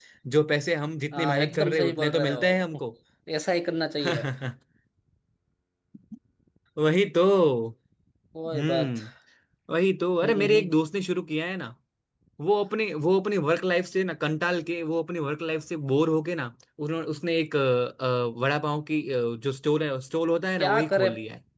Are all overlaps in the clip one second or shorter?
No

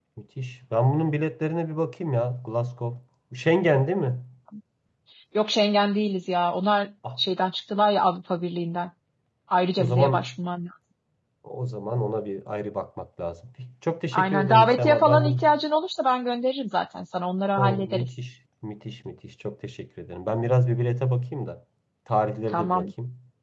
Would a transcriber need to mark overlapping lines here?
Yes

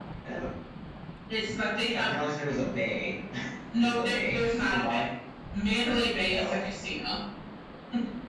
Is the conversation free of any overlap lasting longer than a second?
No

